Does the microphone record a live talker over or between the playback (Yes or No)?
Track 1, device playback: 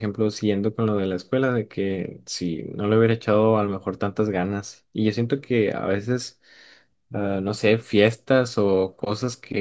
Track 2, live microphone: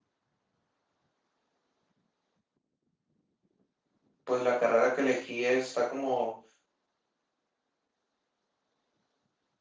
Yes